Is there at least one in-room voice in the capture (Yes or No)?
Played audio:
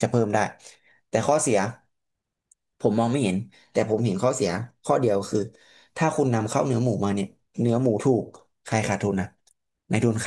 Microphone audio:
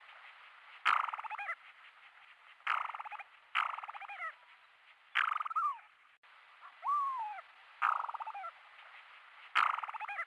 No